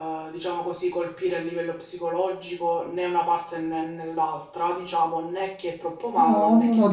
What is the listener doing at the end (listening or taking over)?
taking over